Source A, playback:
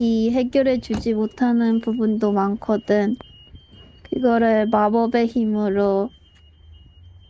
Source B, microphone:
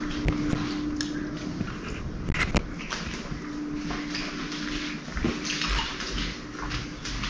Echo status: none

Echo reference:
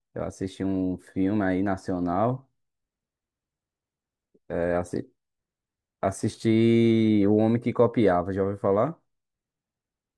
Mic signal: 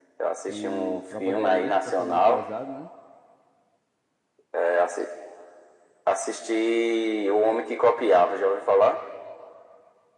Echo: present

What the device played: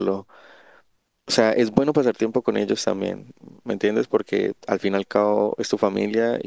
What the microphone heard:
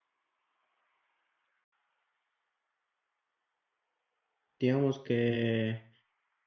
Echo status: none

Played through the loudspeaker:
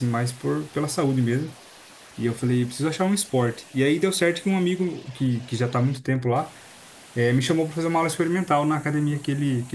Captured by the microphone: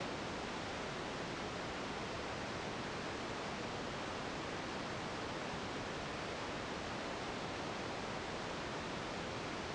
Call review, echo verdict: none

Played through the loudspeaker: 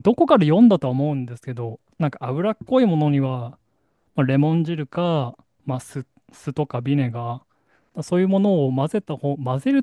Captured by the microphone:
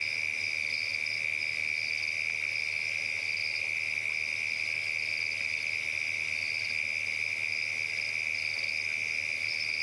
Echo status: none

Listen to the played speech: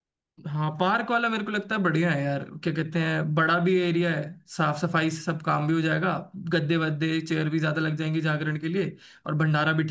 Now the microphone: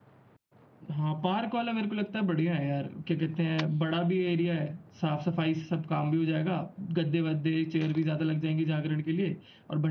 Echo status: present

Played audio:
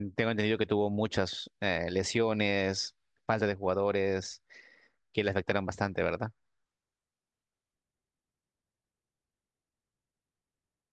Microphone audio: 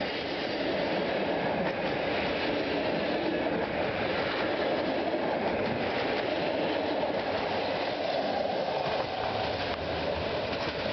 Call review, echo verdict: none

